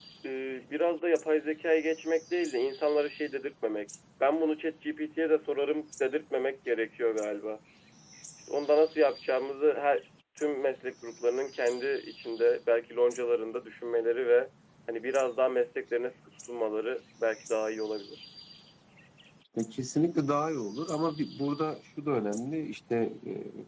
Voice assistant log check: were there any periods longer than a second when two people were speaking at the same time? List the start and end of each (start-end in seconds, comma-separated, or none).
none